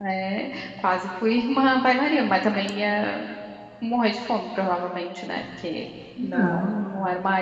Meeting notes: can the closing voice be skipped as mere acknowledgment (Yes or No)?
Yes